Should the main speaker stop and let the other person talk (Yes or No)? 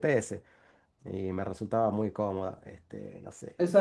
Yes